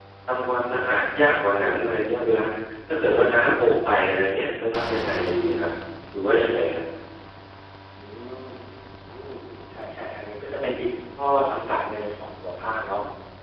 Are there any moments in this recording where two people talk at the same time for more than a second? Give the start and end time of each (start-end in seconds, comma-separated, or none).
none